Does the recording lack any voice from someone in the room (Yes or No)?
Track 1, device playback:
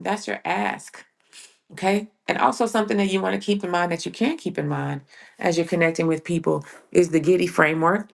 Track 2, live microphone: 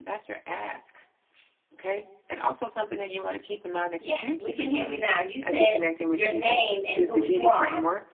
No